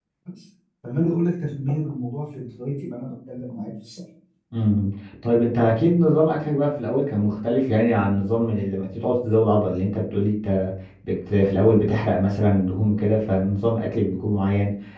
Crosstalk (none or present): none